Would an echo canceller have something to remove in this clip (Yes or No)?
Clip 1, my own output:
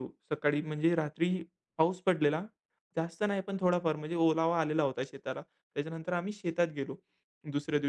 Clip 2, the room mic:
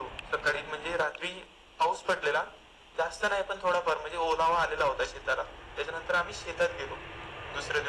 Yes